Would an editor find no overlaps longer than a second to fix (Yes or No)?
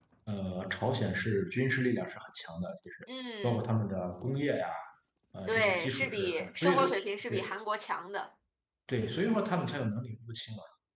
No